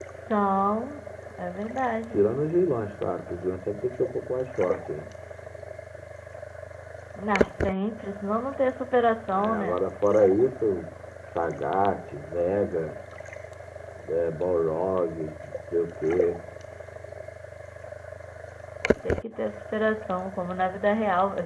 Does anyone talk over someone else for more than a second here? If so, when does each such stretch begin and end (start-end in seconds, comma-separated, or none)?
none